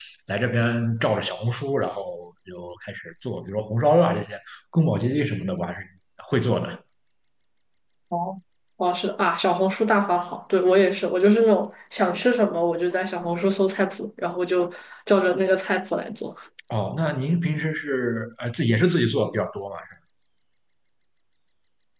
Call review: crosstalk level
none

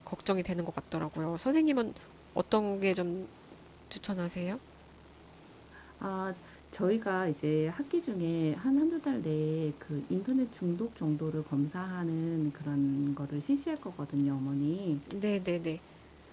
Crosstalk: none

